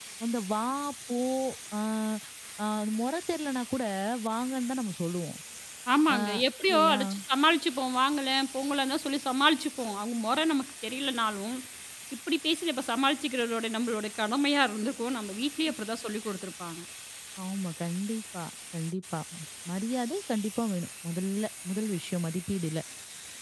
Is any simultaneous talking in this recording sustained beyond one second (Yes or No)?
No